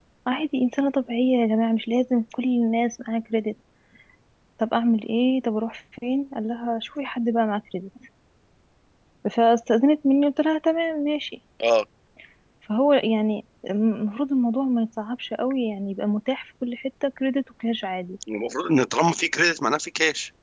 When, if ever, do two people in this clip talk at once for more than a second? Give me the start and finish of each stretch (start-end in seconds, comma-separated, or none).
none